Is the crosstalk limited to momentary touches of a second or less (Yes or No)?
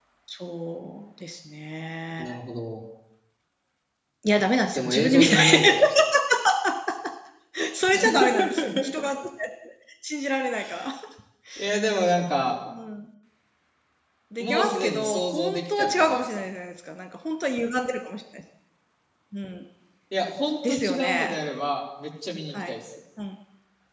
No